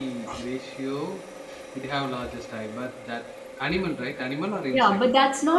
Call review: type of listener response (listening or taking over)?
taking over